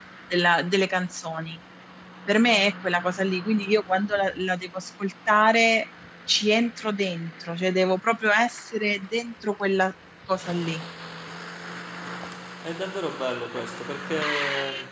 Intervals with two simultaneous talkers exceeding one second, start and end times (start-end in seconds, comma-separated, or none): none